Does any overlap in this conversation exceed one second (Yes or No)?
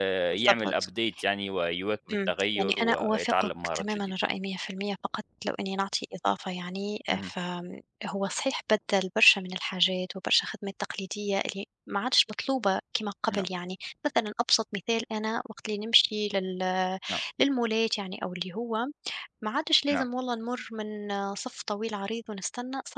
Yes